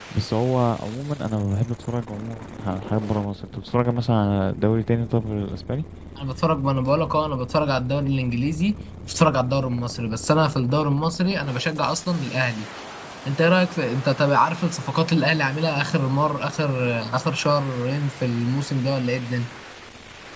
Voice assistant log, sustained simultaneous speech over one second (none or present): none